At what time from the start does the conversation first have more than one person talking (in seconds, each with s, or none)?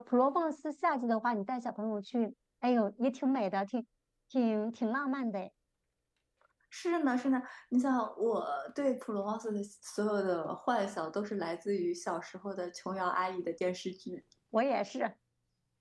none